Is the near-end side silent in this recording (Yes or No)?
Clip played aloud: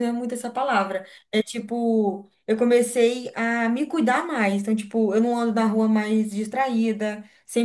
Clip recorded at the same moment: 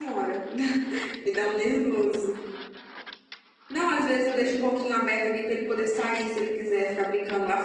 No